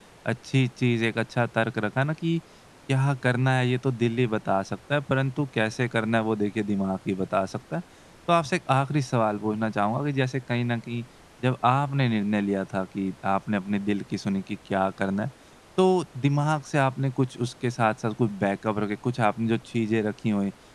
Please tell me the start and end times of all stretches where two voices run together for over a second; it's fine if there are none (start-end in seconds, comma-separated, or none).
none